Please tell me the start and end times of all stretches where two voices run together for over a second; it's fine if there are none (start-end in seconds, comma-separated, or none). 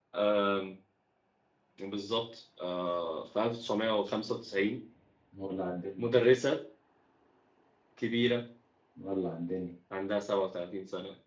none